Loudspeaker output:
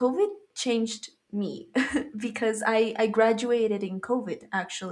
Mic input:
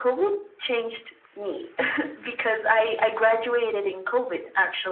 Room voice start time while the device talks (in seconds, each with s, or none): none